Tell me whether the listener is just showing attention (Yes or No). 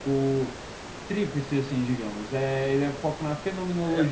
No